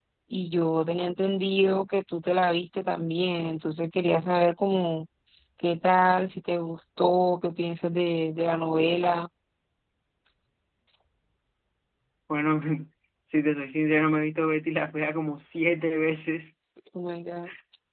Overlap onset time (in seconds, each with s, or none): none